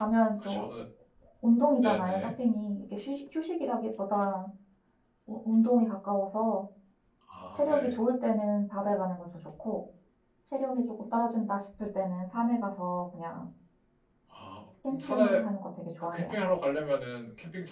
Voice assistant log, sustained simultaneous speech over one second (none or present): none